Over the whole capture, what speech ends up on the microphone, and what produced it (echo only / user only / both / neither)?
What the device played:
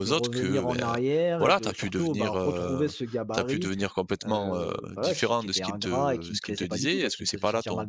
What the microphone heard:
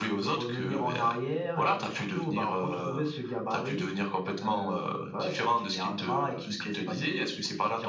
echo only